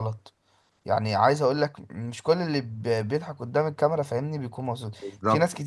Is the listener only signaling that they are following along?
Yes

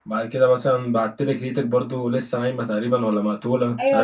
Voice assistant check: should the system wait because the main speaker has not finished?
No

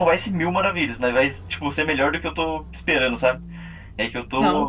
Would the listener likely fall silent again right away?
No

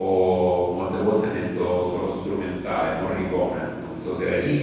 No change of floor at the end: No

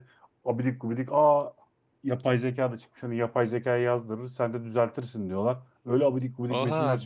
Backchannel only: No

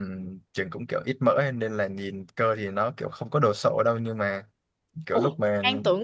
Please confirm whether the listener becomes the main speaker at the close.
Yes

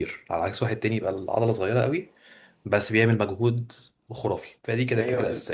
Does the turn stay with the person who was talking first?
No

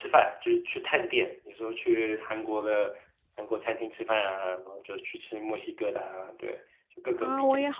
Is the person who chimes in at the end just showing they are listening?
No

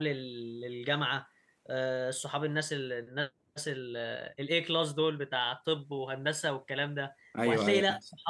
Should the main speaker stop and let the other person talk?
No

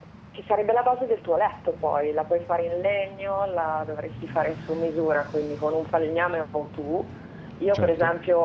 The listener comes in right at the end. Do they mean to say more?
No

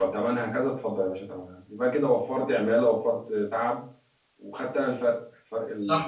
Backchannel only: No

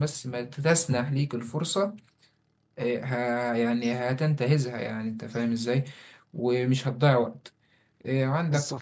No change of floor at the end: Yes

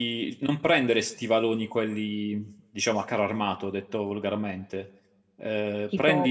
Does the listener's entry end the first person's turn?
Yes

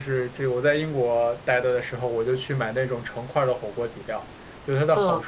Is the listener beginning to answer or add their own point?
No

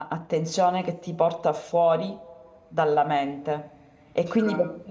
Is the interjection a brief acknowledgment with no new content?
Yes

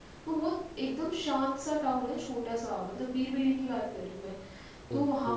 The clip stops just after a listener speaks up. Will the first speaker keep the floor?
Yes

